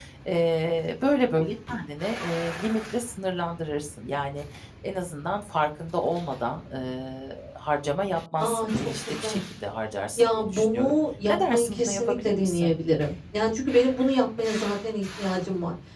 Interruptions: present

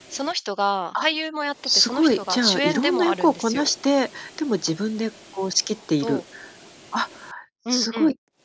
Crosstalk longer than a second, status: present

